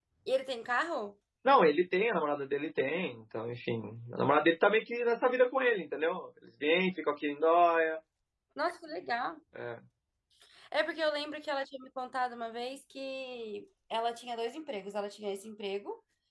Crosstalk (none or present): none